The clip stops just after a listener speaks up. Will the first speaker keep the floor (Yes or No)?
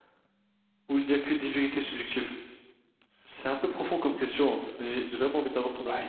No